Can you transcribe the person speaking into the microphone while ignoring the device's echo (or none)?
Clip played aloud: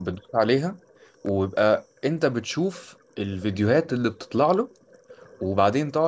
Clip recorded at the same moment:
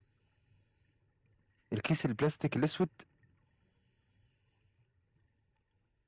الكيس البلاستيك الاسود